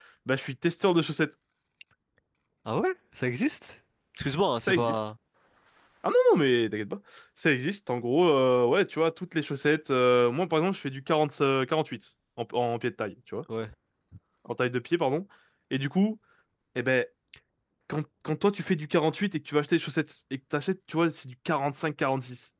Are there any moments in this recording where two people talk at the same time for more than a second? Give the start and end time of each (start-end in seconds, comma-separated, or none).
none